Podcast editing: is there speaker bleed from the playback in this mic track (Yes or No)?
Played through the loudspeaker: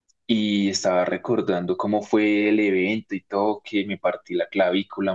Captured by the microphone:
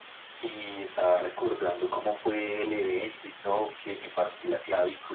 Yes